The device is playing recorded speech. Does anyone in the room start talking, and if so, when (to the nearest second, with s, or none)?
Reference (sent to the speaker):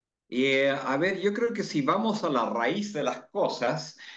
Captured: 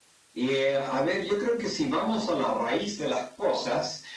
none